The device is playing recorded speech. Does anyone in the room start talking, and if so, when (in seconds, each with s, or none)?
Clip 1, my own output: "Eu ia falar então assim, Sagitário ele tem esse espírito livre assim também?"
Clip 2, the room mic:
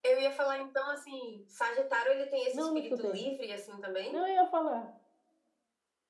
2.5 s